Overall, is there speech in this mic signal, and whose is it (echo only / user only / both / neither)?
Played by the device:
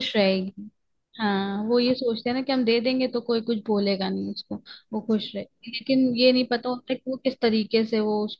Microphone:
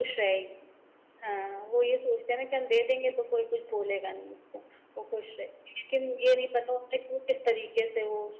echo only